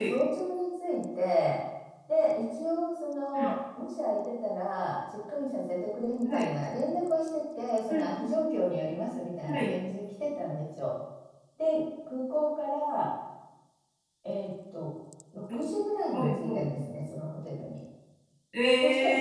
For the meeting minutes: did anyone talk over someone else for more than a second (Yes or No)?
No